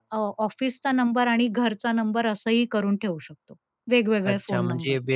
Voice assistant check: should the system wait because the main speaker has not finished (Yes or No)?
No